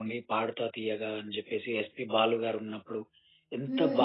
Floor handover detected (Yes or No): No